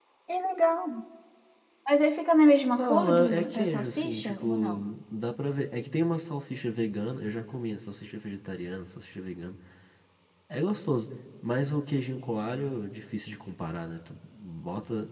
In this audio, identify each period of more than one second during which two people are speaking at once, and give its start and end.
2.8-4.8

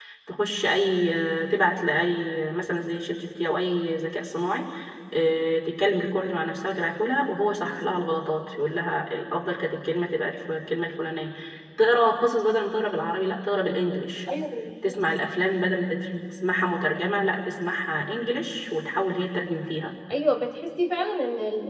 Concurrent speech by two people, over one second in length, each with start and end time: none

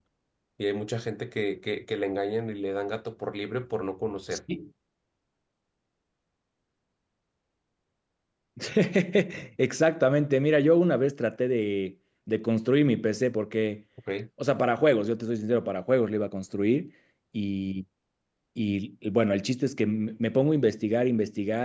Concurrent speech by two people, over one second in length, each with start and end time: none

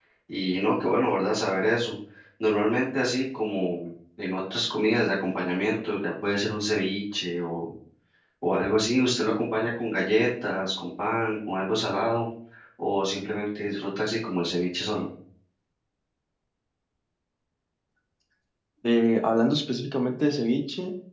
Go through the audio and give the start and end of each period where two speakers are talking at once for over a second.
none

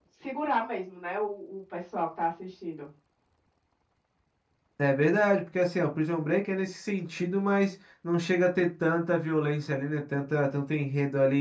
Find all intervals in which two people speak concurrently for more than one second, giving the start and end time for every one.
none

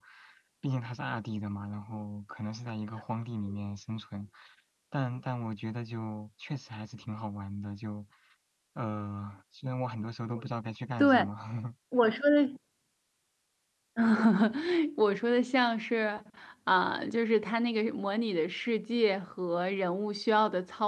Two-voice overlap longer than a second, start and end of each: none

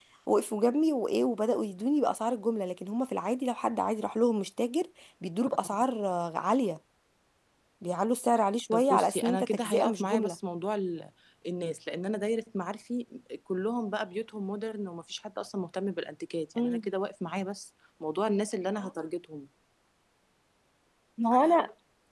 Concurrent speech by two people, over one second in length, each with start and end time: 8.7-10.4

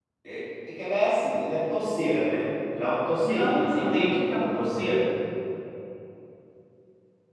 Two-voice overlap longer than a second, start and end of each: 3.2-5.0

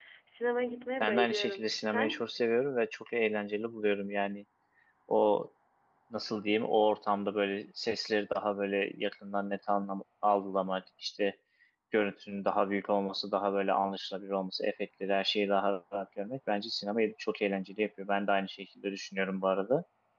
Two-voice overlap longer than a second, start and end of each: 1.0-2.2

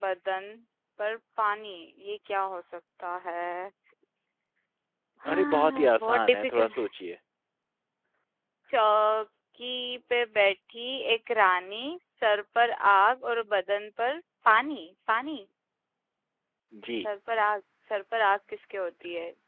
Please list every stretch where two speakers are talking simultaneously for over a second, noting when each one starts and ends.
5.3-6.7

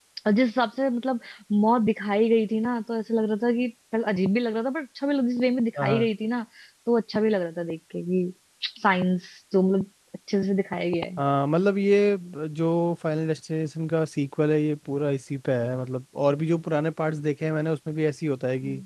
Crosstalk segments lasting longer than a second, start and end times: none

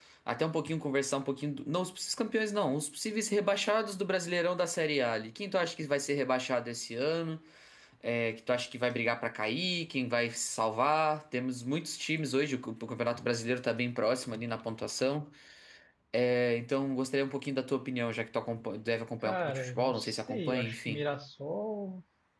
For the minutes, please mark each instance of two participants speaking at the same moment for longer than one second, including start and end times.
19.2-21.0

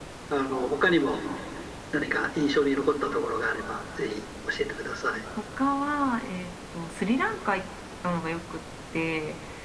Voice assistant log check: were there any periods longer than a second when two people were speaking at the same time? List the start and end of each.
none

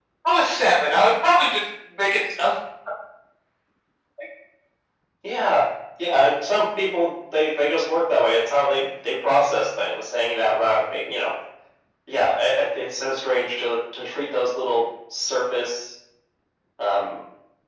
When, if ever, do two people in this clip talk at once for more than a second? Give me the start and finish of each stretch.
none

